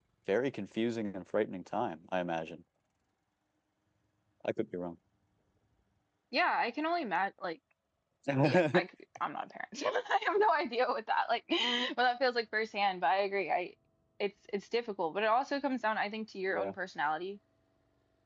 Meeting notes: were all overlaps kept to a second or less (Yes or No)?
Yes